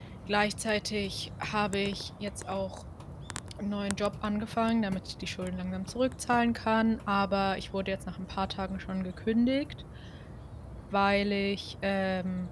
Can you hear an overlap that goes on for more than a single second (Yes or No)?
No